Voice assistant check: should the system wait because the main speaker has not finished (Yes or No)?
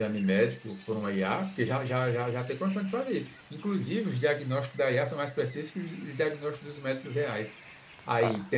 Yes